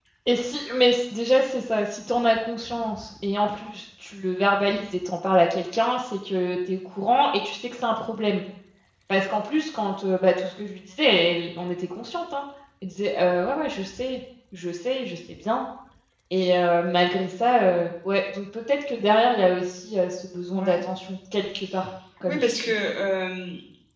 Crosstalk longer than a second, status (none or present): none